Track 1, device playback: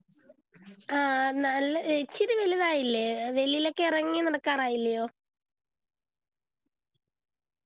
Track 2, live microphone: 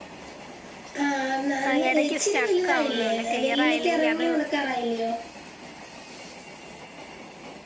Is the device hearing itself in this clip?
Yes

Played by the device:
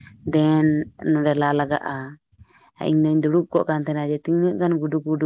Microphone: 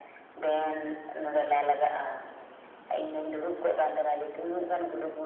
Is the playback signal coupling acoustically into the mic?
Yes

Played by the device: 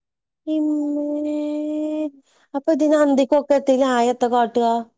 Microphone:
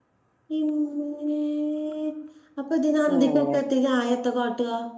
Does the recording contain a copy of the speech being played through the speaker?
Yes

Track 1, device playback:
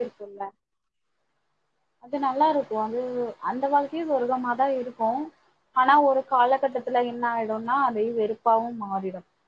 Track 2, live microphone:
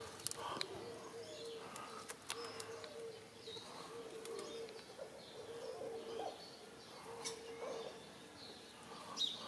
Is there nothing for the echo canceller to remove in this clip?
Yes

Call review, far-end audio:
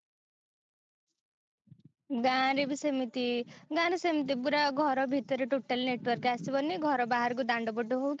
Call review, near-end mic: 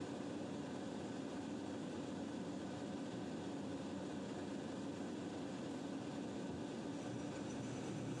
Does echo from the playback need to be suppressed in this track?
No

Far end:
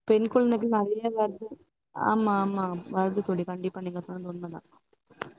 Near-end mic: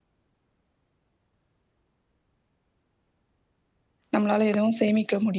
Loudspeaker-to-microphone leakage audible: No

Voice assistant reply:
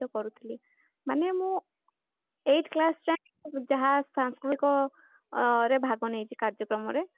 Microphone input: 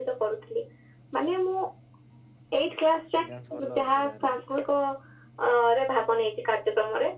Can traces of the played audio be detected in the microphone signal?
Yes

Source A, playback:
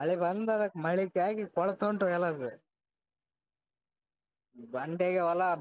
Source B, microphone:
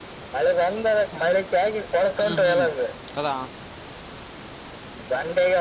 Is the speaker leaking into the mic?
Yes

